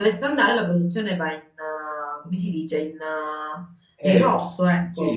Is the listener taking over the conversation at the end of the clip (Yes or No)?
Yes